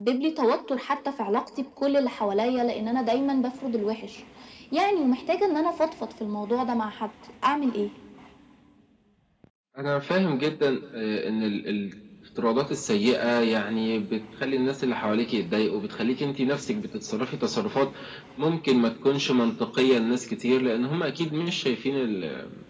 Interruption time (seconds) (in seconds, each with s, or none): none